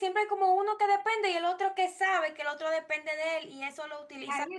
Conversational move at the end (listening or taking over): taking over